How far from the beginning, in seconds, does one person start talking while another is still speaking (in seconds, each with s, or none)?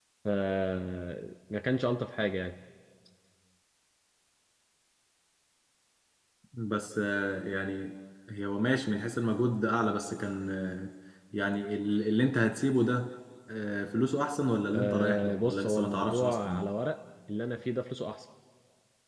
14.7 s